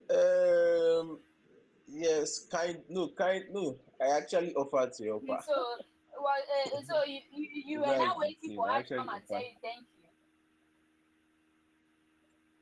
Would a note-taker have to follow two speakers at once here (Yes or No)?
Yes